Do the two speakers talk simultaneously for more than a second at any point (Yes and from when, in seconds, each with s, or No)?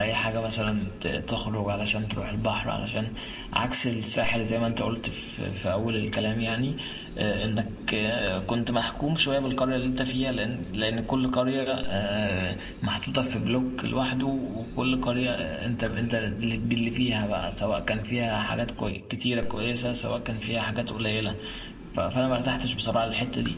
No